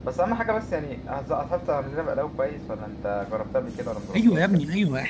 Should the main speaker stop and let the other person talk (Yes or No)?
Yes